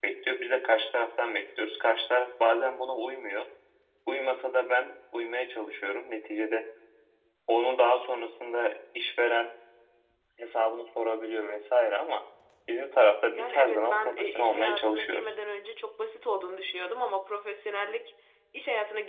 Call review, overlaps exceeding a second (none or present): present